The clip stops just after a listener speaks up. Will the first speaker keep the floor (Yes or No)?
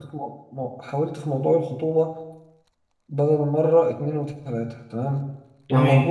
Yes